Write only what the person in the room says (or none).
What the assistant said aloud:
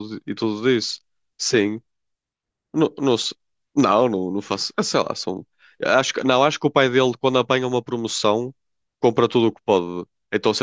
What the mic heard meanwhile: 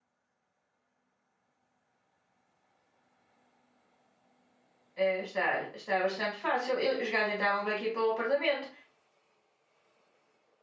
é, está, está bastante fácil. Eu- os gajos entravam bem aqui pelo apartamento.